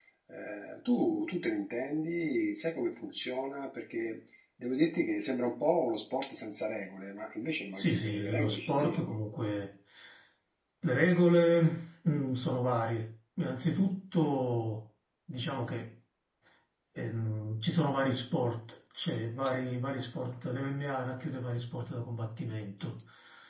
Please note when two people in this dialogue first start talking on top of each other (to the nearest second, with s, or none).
8 s